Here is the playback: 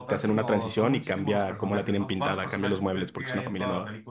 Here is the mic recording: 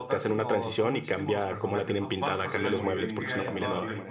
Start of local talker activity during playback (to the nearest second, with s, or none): 2 s